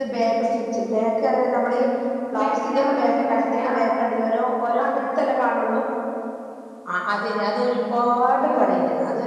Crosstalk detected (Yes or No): Yes